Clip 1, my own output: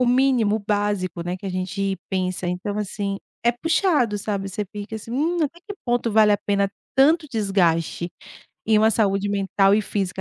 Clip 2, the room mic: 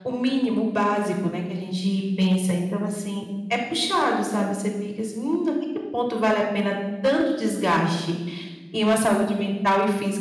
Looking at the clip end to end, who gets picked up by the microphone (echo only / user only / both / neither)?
echo only